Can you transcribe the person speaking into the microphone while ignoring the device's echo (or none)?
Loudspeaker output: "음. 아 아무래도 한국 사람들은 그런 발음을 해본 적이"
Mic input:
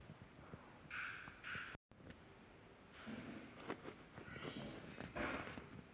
none